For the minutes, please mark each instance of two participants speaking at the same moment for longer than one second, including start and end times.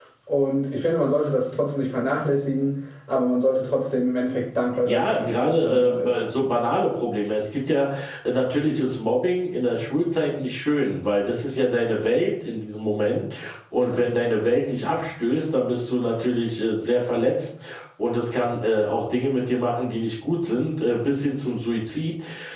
4.8-6.1

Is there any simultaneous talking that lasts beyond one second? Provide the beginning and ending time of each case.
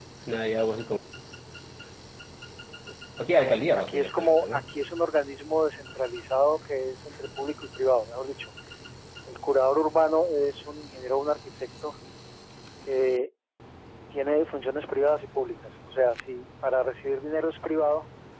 3.4-4.7

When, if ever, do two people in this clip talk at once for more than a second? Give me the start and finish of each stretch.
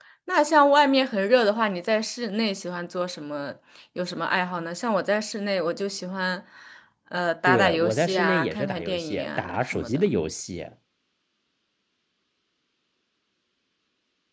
7.5-10.1

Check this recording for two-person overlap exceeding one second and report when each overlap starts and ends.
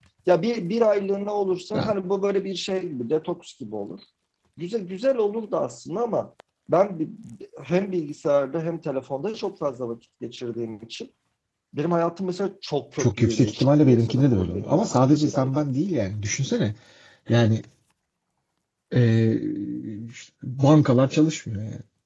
13.0-15.5

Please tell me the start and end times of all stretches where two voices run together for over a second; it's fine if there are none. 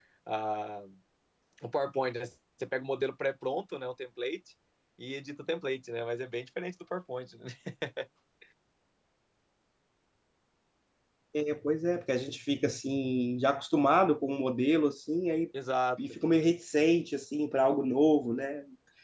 none

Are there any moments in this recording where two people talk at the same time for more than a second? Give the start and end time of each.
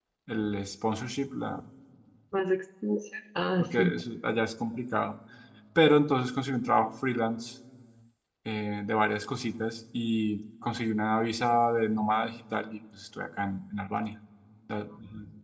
none

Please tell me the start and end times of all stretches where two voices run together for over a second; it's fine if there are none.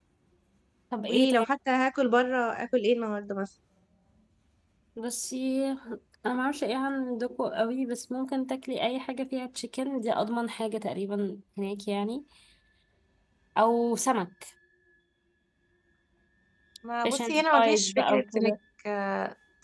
17.0-18.5

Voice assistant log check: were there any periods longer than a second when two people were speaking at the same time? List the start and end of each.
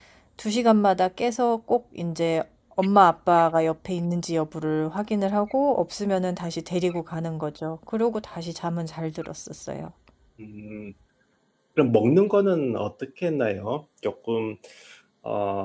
none

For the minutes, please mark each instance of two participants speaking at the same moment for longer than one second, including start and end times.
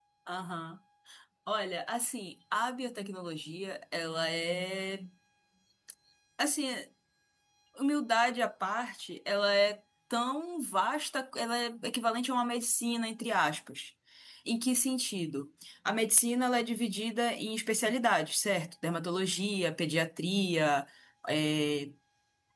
none

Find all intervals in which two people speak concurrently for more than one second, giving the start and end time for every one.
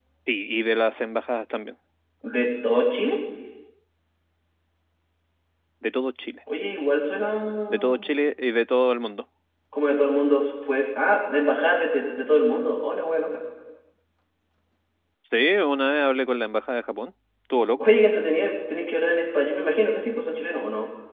none

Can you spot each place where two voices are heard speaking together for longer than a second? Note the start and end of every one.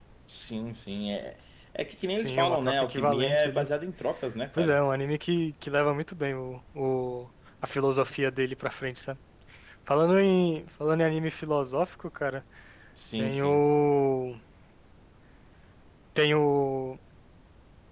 2.2-3.7

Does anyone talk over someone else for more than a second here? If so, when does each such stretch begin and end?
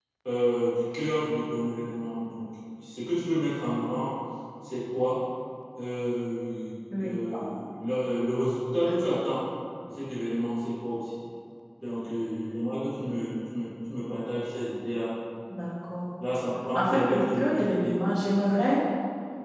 16.8-18.0

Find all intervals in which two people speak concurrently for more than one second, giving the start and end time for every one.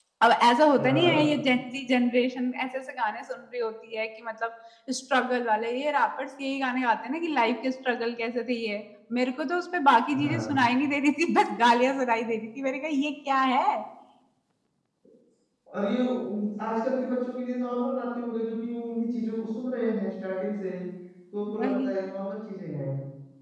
none

